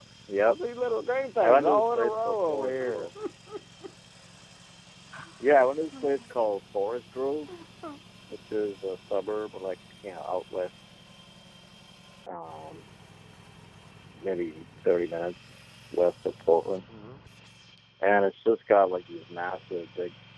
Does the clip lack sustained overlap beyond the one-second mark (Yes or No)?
No